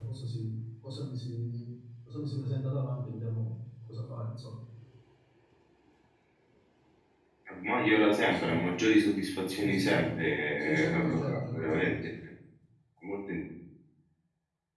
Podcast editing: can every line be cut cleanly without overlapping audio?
No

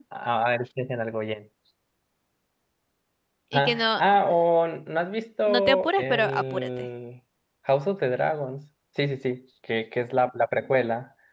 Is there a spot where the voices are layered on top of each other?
Yes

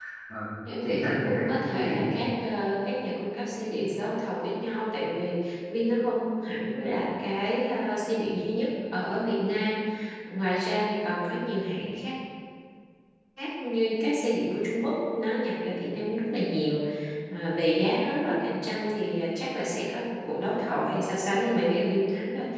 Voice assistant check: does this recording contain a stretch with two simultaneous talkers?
Yes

